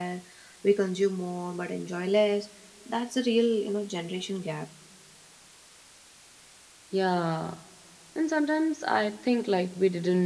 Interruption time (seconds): none

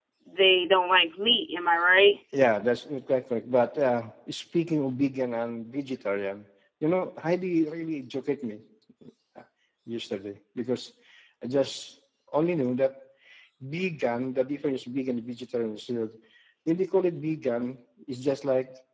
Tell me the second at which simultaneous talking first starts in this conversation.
none

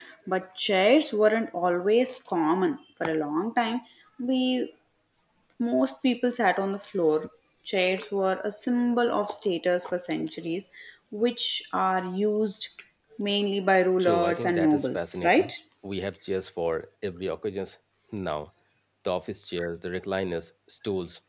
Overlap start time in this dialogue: 14.0 s

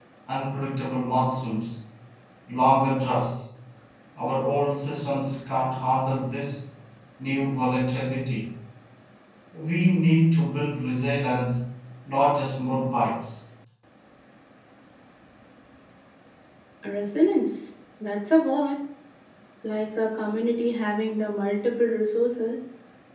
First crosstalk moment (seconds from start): none

